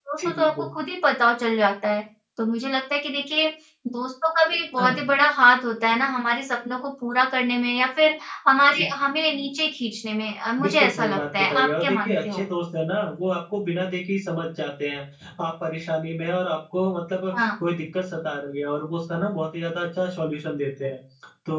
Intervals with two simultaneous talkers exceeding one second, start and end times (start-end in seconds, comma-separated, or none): 10.6-12.4